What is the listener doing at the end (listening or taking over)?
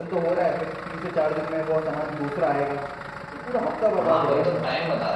taking over